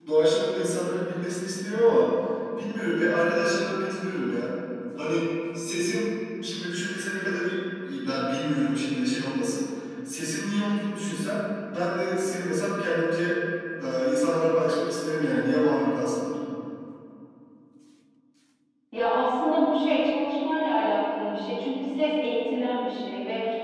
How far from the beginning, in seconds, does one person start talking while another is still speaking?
none

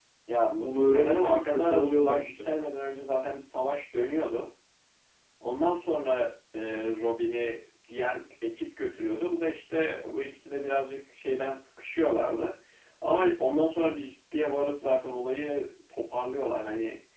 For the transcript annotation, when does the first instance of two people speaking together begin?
0.6 s

